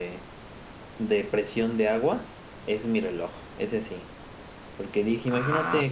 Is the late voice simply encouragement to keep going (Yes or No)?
Yes